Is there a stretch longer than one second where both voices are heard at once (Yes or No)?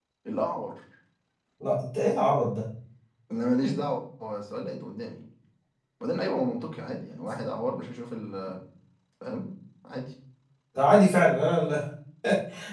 No